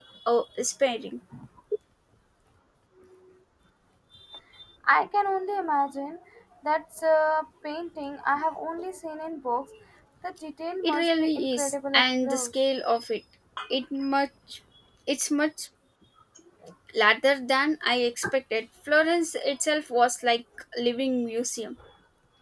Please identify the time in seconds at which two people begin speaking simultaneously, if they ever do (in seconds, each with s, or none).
10.8 s